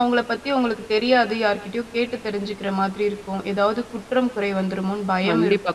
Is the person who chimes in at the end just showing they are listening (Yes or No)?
No